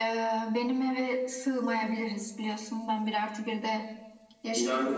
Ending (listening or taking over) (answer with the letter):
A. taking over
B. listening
A